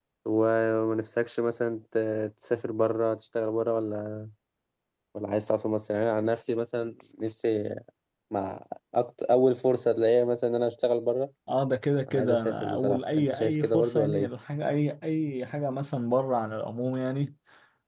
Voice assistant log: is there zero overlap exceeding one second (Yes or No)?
No